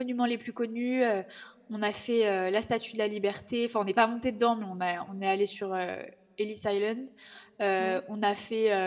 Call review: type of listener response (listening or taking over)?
listening